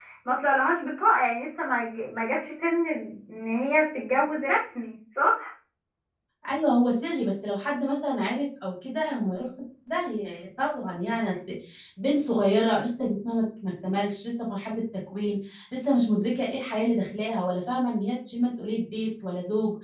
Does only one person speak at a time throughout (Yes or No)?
Yes